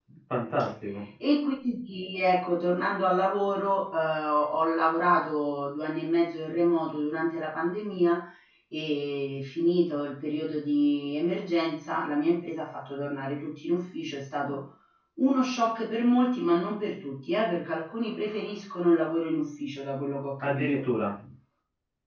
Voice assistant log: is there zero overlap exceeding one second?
Yes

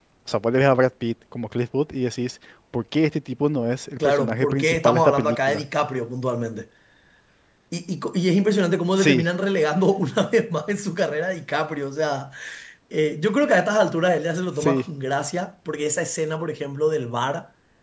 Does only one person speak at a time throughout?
No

